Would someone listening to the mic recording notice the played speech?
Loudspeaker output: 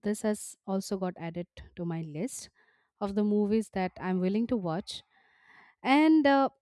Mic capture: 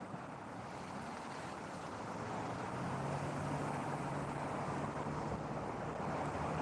No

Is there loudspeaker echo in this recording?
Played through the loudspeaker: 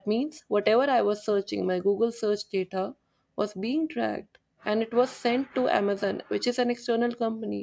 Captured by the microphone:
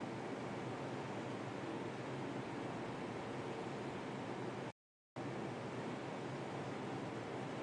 No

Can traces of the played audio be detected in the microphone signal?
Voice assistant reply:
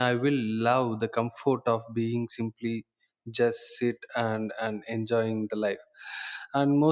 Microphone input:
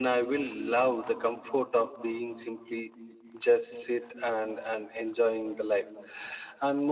Yes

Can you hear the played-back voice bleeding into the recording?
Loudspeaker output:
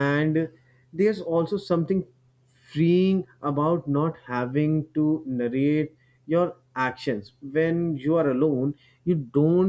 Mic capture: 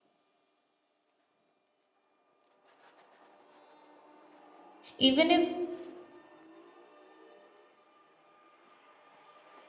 No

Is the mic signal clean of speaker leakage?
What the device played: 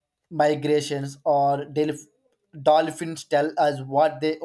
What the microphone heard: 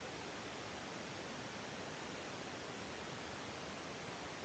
Yes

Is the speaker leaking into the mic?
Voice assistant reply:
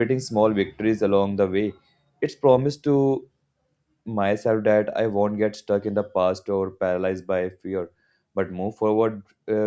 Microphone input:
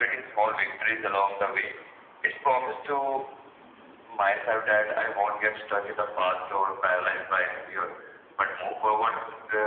Yes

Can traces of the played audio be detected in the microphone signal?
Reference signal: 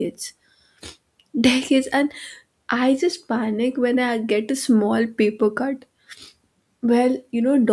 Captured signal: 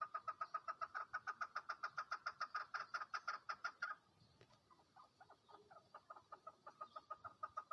No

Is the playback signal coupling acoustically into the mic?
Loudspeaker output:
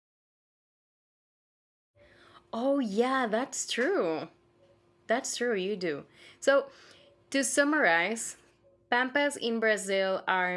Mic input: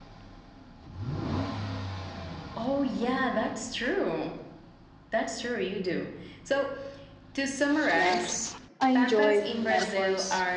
Yes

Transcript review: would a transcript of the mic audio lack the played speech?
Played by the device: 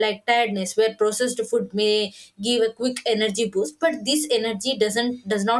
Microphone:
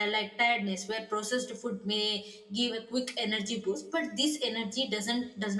No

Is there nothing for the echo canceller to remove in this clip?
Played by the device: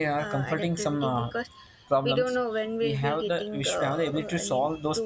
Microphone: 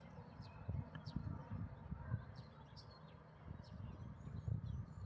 Yes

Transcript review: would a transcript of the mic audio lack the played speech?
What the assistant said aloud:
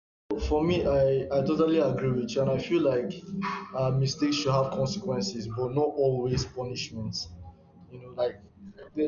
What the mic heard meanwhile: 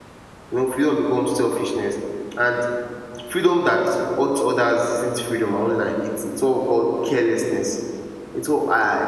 Yes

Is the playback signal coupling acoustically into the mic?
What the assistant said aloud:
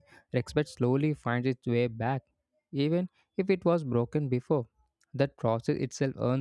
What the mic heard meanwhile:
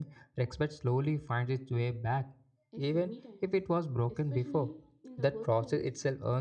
Yes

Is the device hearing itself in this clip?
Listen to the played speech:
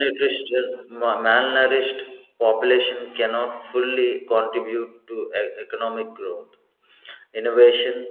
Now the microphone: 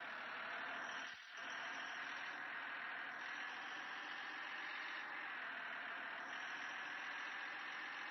No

